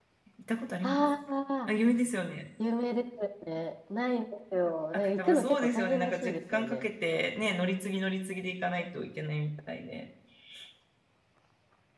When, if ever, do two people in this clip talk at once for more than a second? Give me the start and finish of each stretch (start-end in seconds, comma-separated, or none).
4.9-6.9